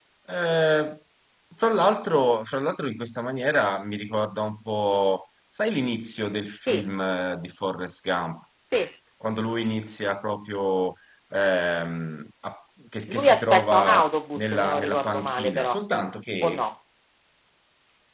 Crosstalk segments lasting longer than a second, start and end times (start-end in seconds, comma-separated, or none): 13.1-15.8